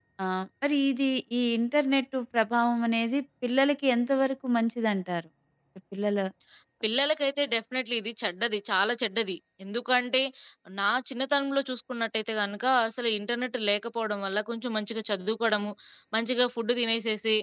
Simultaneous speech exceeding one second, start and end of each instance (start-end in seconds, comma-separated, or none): none